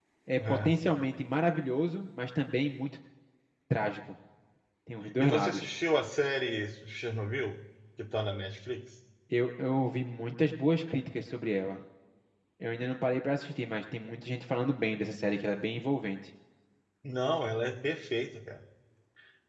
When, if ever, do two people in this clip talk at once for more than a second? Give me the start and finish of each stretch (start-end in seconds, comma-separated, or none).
none